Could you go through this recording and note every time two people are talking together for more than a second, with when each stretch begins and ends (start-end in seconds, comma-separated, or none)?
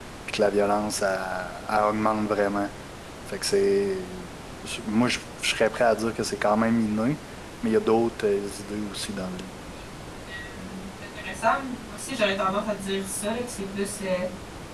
none